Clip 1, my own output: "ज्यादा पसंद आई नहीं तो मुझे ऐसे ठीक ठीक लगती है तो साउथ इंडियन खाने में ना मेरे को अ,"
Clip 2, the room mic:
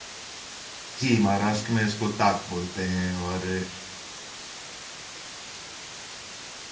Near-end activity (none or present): present